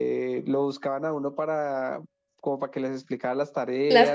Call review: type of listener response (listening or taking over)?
listening